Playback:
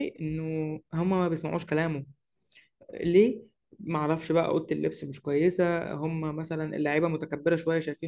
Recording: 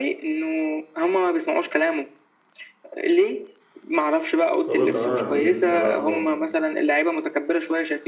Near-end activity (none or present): present